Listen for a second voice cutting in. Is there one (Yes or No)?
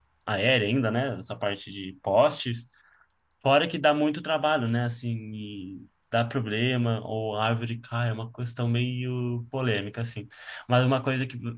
No